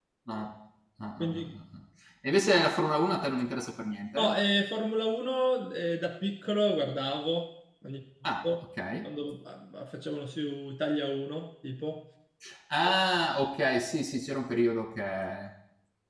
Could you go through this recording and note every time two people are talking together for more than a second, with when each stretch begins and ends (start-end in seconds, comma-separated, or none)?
none